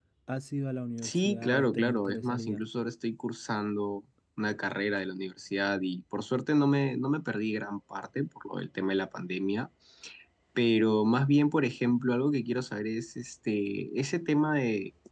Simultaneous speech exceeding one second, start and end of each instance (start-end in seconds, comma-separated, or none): 1.0-2.6